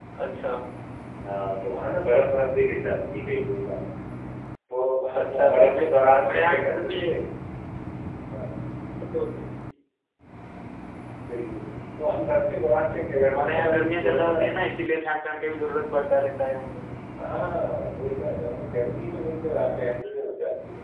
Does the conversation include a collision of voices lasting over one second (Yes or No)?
Yes